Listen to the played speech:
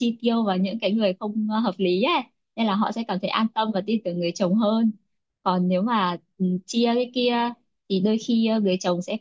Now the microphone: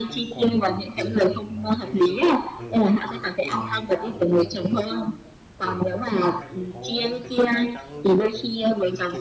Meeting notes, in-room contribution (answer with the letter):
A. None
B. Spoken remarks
B